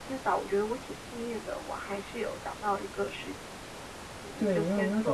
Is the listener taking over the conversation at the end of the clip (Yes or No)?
Yes